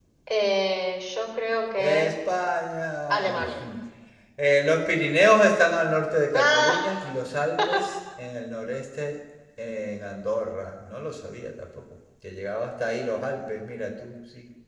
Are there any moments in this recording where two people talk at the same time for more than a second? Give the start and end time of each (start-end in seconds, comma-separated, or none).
none